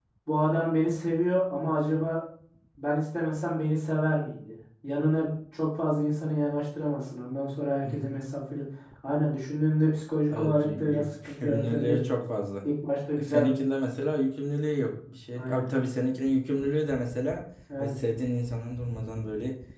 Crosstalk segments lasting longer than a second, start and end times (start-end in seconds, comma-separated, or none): 10.3-12.1